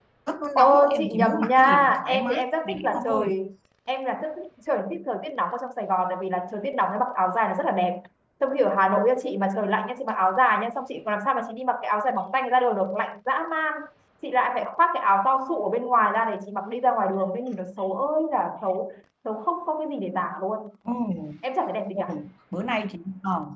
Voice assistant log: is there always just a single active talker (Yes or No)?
No